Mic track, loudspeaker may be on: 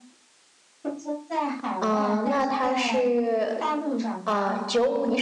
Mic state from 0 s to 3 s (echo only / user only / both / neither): both